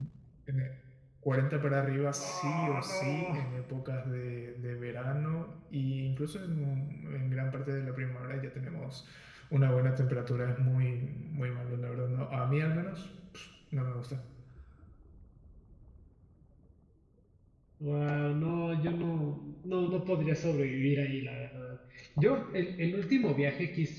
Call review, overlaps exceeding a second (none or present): present